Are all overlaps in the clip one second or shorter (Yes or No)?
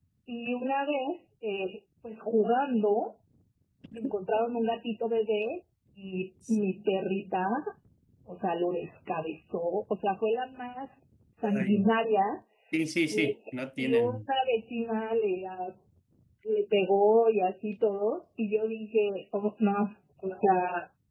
Yes